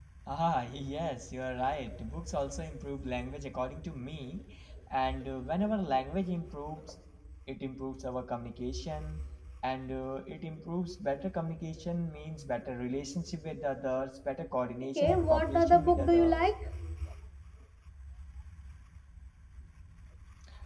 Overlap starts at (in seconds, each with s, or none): 14.9 s